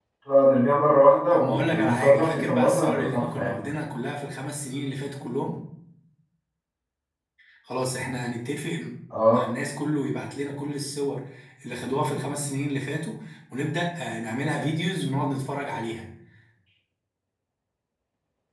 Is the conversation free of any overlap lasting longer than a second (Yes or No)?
No